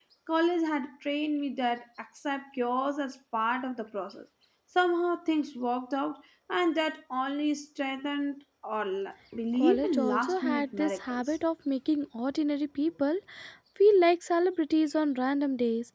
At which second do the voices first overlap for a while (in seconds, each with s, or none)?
9.6 s